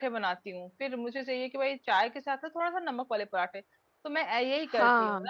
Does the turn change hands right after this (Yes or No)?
No